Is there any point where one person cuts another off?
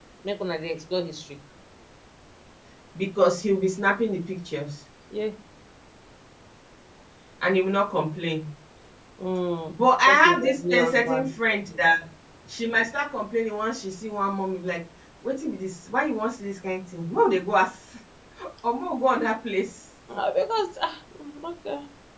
Yes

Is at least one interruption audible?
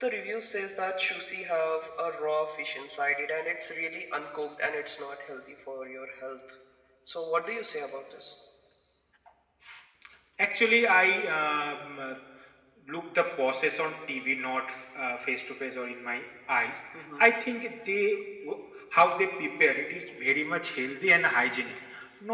No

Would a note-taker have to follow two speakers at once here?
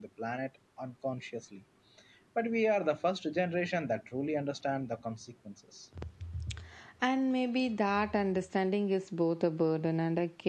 No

